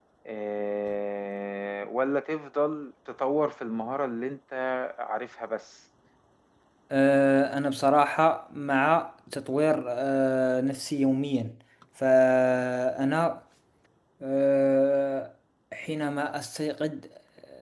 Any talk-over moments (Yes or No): No